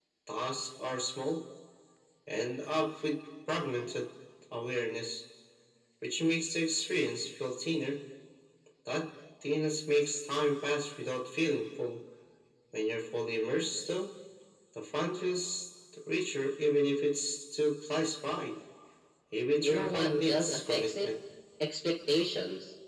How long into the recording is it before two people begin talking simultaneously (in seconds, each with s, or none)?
19.6 s